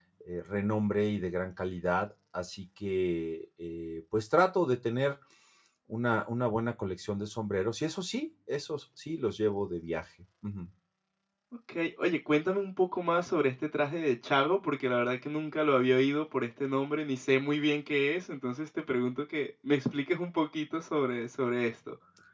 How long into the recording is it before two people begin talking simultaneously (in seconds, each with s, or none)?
none